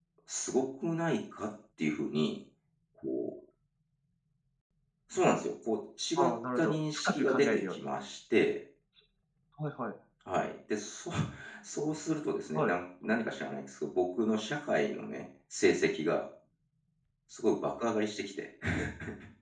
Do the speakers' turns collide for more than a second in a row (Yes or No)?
Yes